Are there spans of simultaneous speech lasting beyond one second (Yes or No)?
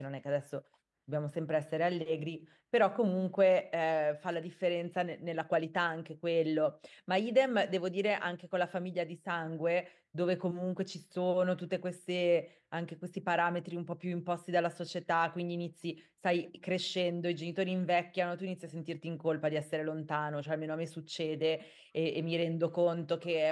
No